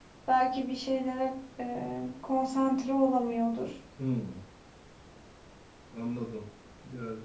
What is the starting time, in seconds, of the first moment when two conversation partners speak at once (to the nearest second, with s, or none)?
none